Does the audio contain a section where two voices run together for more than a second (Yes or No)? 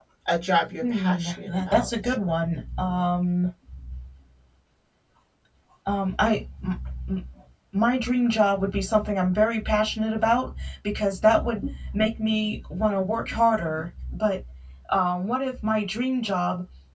Yes